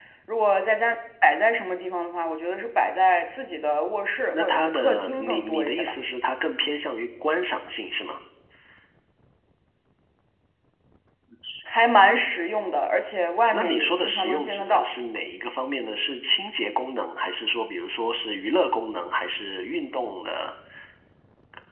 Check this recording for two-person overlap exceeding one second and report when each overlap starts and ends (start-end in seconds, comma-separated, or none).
4.3-5.9, 13.5-14.9